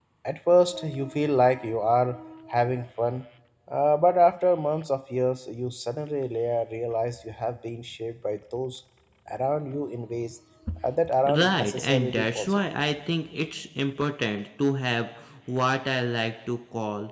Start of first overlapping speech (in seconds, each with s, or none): 11.3 s